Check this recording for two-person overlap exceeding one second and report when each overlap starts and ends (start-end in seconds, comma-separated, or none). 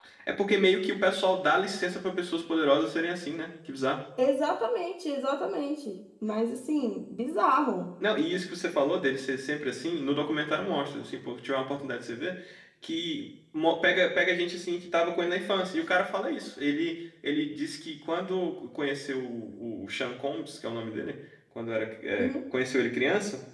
none